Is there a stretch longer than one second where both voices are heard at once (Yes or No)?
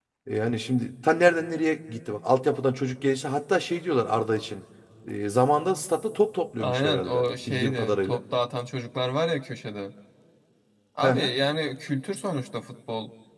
Yes